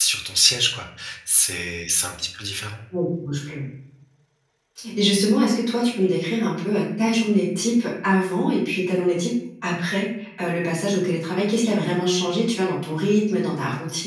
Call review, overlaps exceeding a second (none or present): none